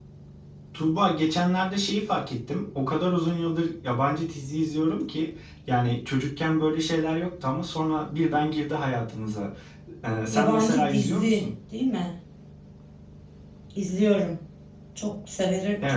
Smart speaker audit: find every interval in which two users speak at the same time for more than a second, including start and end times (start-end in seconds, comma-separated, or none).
10.3-11.5